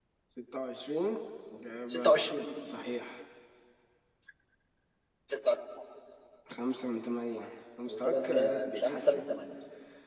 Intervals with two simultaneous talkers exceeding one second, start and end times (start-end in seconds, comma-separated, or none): 7.9-9.2